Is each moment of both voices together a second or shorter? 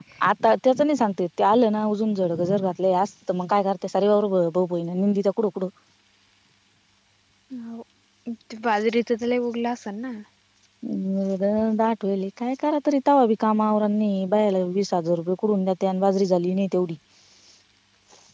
Yes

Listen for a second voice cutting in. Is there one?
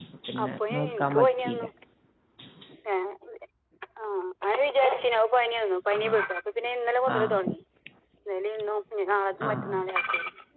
Yes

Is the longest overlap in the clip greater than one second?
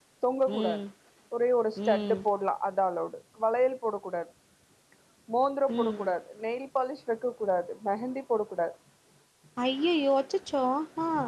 No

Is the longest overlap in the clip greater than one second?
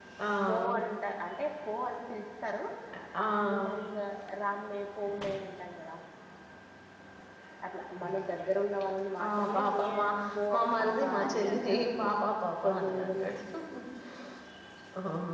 Yes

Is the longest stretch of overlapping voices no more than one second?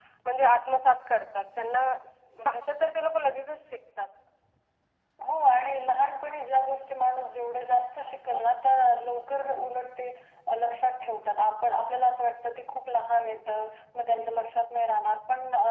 Yes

